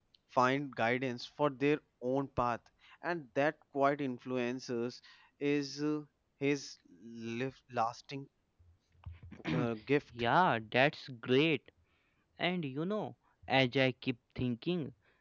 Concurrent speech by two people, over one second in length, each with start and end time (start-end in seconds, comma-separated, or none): none